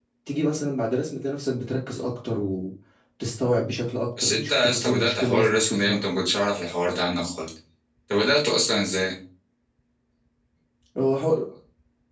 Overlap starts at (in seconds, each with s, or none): 4.2 s